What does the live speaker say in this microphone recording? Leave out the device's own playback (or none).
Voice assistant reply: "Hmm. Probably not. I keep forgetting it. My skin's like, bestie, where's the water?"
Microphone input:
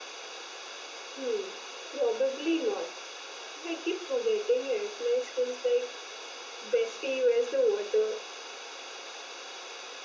none